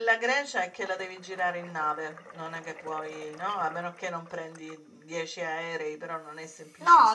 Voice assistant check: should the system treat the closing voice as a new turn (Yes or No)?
Yes